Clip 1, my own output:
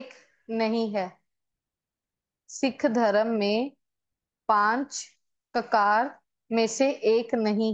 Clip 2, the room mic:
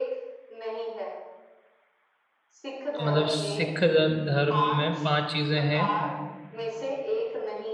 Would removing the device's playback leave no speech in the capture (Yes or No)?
No